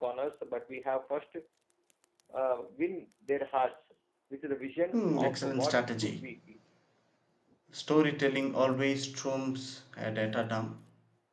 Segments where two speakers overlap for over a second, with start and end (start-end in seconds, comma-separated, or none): 4.9-6.3